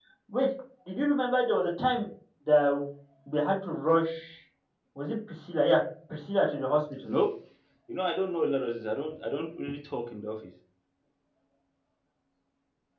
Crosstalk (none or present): none